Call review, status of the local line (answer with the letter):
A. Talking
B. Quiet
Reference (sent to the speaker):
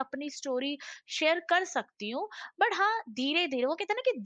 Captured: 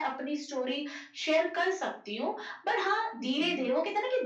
A